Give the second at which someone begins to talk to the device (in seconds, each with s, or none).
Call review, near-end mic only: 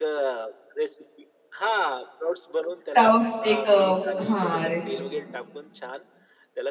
2.8 s